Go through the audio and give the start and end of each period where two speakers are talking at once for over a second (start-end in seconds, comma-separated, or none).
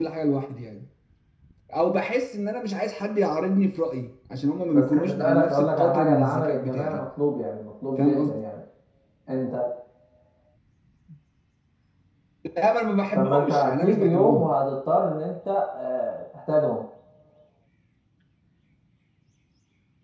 4.7-7.0, 13.2-14.5